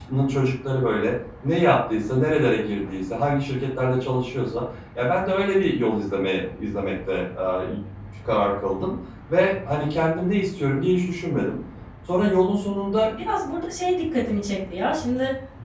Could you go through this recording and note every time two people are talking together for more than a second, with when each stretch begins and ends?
none

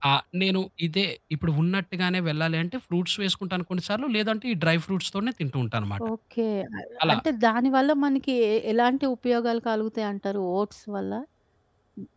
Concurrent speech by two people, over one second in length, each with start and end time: none

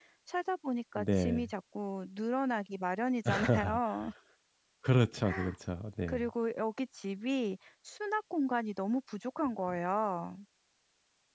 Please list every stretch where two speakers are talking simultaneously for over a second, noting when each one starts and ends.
none

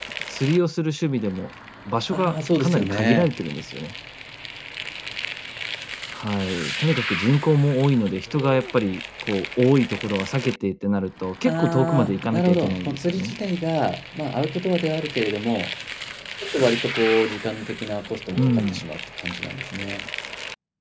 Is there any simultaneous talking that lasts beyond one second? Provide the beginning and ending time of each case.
2.1-3.3, 11.4-13.3

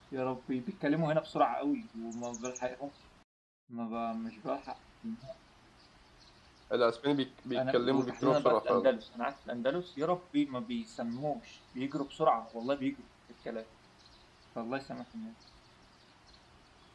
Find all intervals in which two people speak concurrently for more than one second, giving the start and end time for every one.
7.5-8.9

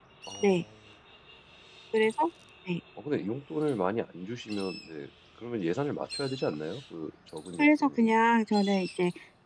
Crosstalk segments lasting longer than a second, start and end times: none

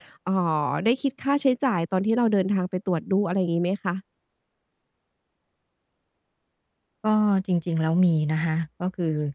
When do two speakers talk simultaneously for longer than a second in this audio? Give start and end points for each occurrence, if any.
none

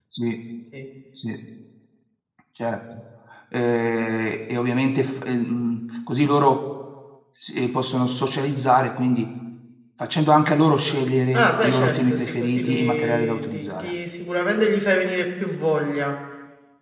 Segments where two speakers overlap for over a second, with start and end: 11.3-13.9

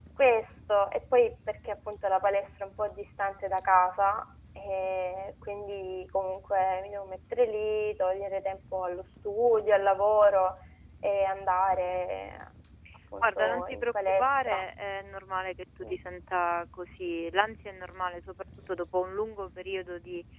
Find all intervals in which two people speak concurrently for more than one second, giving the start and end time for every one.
13.2-14.6

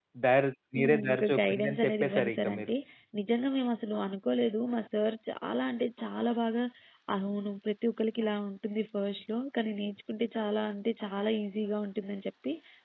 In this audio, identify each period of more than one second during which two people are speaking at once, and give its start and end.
0.8-2.7

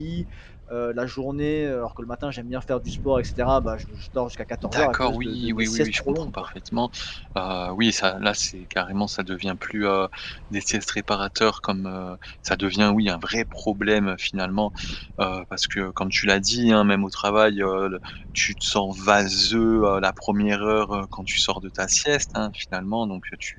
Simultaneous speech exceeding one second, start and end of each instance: 4.6-6.5

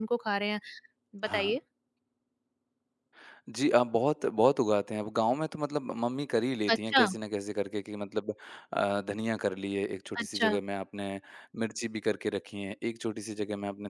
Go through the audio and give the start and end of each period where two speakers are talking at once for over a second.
none

